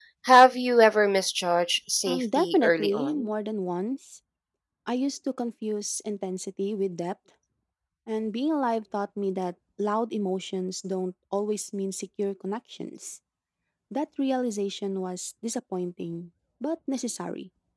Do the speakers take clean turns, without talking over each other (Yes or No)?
No